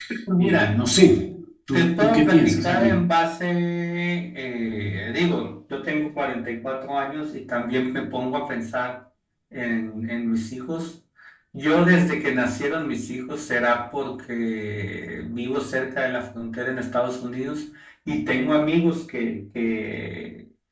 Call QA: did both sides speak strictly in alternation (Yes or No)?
No